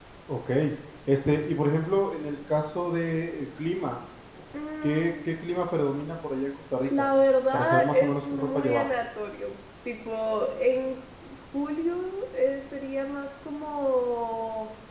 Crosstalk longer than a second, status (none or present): present